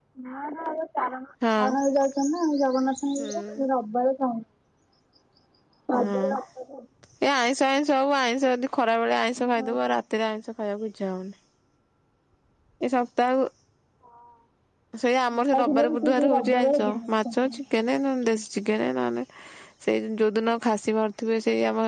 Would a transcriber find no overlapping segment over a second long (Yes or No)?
No